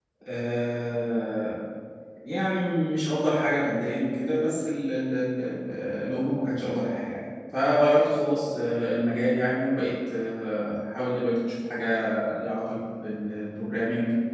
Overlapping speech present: No

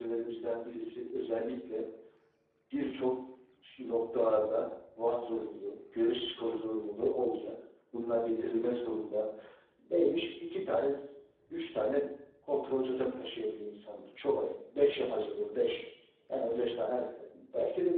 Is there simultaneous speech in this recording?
No

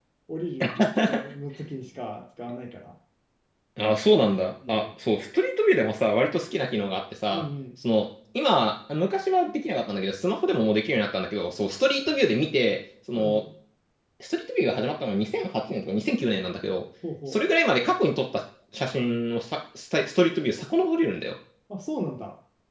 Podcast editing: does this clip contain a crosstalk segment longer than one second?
No

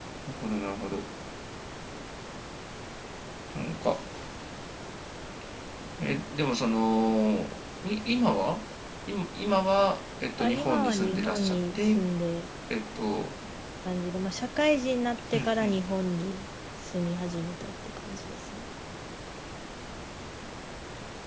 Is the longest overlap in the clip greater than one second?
Yes, from 10.4 s

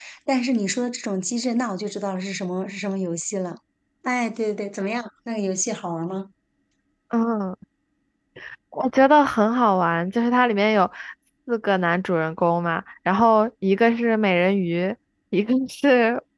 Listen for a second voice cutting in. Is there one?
No

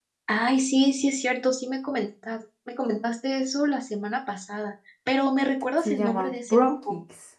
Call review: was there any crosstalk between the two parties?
Yes, from 5.8 s

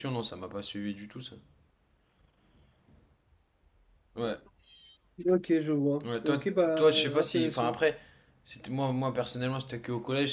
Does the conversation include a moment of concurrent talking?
Yes, from 6.0 s

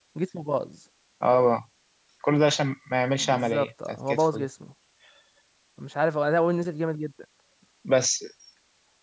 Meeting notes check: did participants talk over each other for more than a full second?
Yes, from 3.2 s

